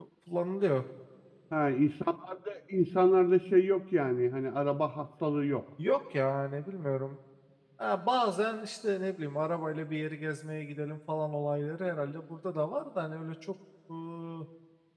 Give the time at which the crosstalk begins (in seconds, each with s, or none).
none